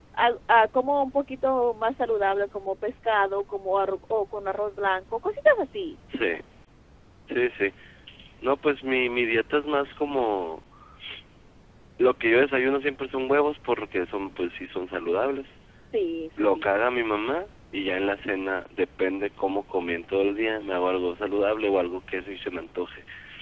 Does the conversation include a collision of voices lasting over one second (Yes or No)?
No